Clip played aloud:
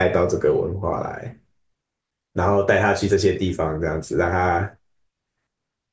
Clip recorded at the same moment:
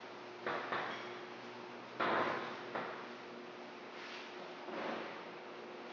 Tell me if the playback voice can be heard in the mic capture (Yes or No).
No